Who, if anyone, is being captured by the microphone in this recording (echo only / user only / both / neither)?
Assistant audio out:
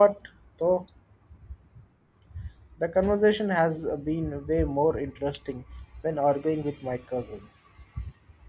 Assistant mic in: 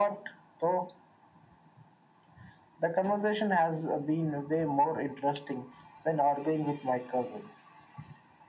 echo only